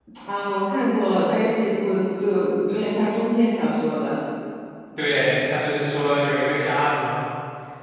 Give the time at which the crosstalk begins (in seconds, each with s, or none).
none